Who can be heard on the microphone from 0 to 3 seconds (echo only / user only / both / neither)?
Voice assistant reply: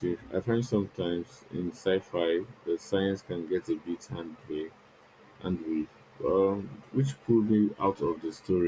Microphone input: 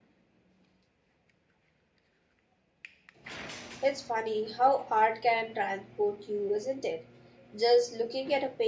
neither